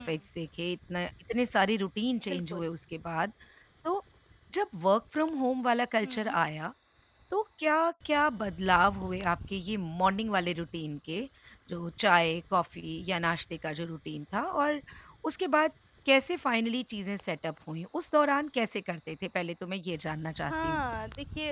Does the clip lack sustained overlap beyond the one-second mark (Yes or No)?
Yes